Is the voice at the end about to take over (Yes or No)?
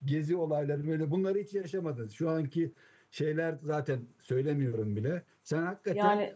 No